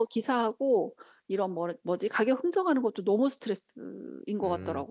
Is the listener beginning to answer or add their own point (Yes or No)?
Yes